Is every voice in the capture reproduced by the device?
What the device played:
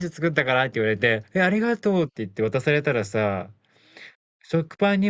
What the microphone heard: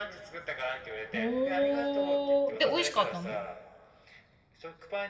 No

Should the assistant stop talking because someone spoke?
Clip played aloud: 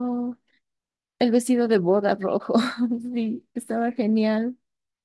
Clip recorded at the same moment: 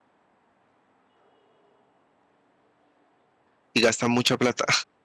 Yes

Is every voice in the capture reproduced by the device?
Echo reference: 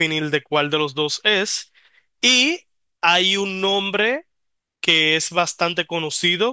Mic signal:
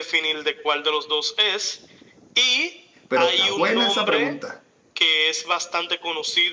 No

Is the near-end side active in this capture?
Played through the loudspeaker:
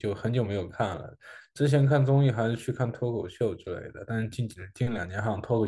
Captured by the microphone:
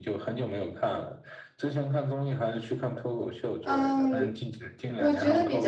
Yes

